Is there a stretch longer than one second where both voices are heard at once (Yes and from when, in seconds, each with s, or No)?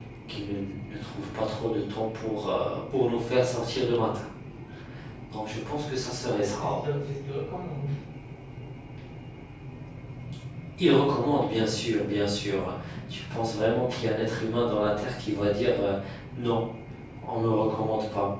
No